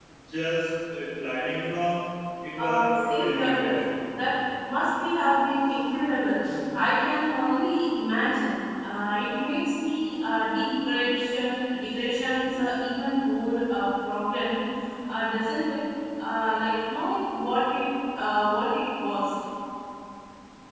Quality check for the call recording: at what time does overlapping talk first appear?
2.6 s

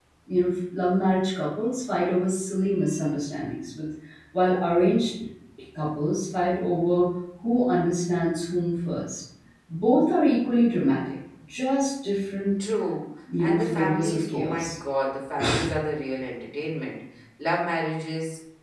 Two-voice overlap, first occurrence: 13.4 s

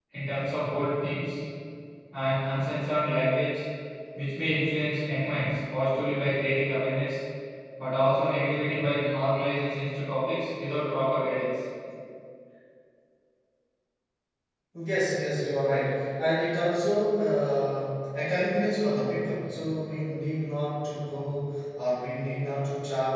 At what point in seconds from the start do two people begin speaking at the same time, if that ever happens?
none

